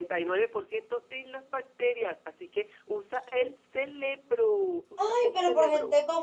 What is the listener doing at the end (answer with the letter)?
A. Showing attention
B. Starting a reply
B